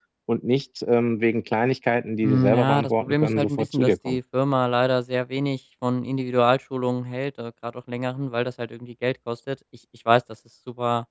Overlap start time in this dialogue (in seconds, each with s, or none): 2.2 s